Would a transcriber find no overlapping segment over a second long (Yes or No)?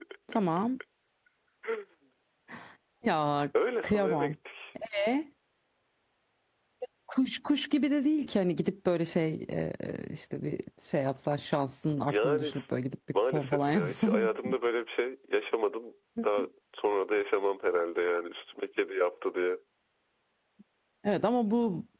No